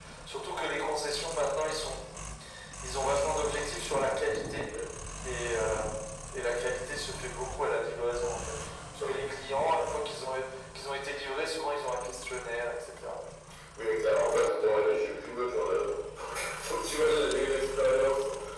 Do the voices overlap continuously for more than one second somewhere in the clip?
No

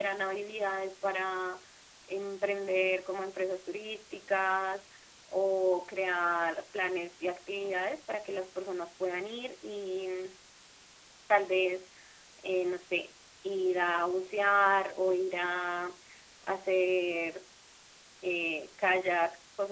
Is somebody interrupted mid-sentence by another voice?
No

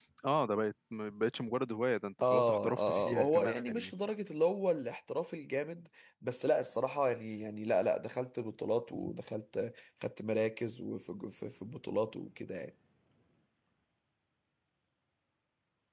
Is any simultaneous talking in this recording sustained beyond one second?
Yes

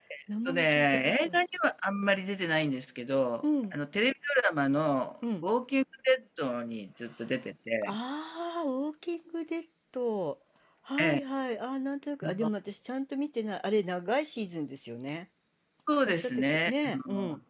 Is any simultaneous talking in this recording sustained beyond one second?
Yes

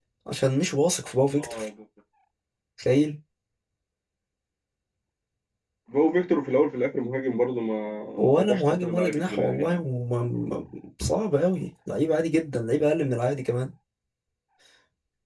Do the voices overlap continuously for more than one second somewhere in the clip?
Yes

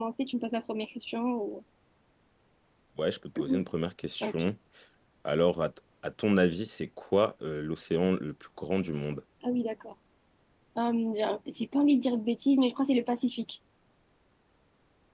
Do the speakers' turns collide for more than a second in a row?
No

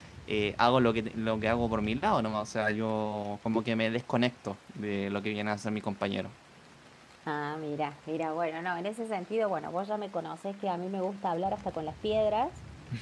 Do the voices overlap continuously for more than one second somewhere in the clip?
No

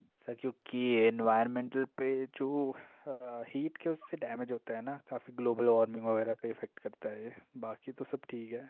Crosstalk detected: No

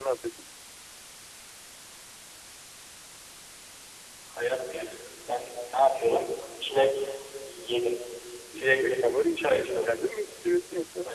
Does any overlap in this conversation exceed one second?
Yes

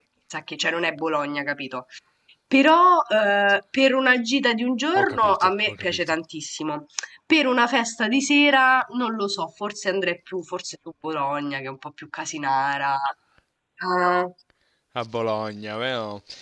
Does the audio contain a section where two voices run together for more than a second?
Yes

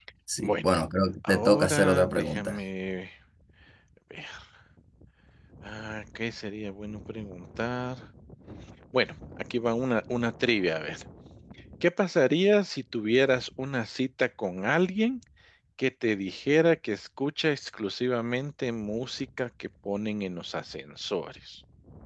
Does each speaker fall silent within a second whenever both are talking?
No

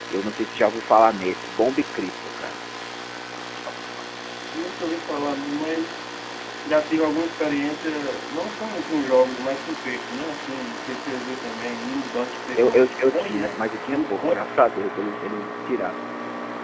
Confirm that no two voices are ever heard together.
No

